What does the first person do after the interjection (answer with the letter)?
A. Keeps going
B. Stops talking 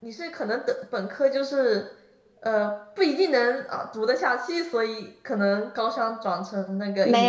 B